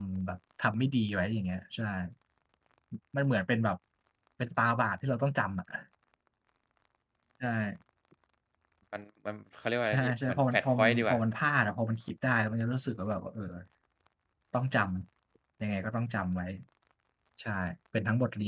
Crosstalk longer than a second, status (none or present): present